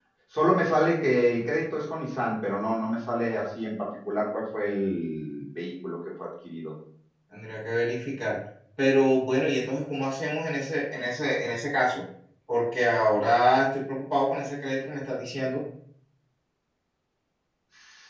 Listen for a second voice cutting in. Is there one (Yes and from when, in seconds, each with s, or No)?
No